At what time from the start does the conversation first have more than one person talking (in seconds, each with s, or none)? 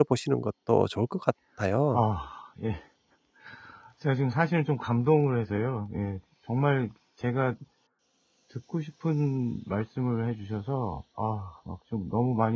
none